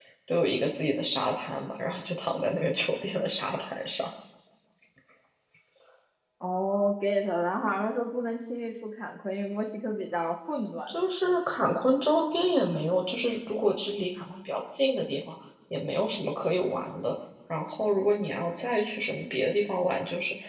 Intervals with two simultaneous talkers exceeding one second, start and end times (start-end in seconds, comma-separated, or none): none